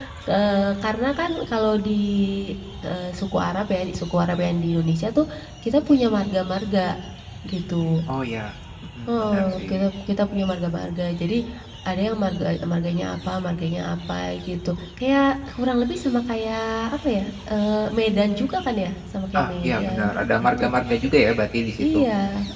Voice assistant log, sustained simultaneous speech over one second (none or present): present